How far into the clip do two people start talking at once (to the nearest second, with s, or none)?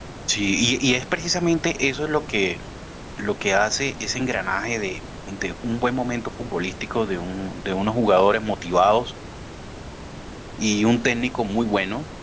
none